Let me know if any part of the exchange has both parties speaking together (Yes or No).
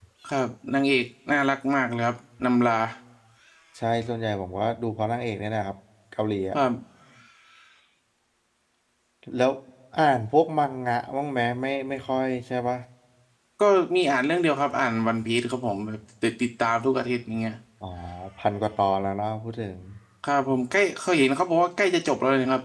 No